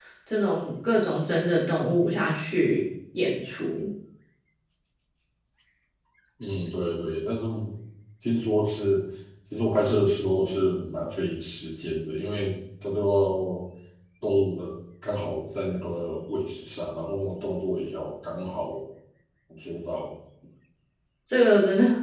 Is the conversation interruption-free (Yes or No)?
Yes